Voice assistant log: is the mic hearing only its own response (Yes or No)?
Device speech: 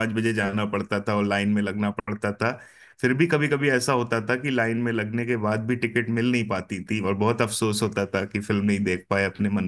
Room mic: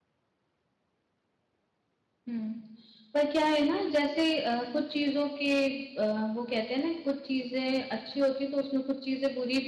No